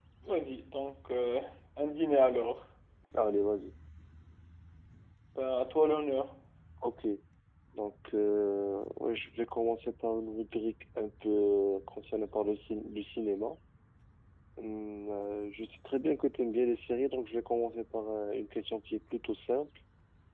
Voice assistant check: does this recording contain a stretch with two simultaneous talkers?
No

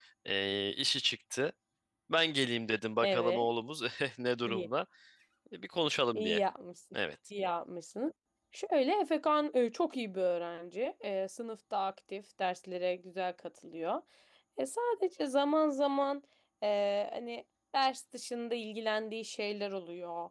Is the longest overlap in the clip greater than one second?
No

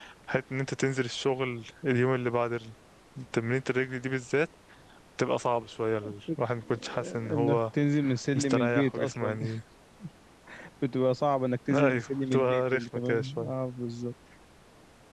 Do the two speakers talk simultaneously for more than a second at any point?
Yes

